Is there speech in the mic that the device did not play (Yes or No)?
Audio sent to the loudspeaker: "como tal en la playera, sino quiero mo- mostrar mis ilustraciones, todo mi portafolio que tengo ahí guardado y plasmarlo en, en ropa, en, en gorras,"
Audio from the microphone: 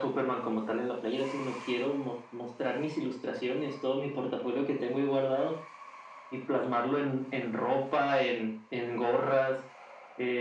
No